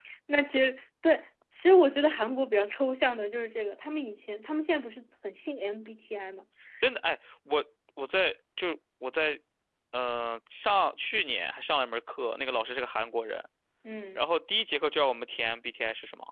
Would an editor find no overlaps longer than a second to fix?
Yes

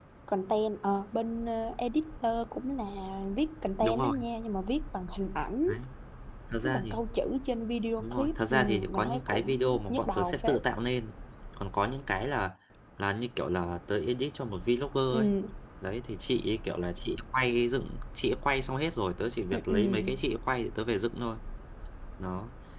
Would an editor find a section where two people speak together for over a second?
Yes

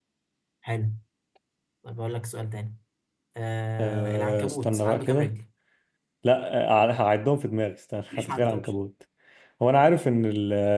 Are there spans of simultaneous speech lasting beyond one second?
Yes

